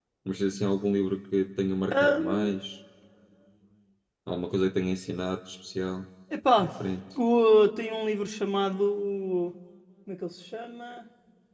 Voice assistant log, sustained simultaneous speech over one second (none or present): none